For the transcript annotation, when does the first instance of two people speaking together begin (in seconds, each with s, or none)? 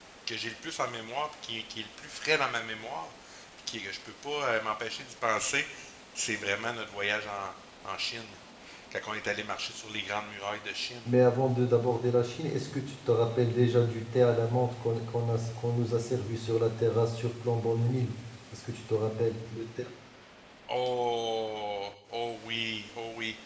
none